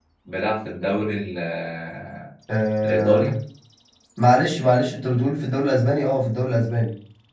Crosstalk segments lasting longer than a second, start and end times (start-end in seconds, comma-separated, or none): none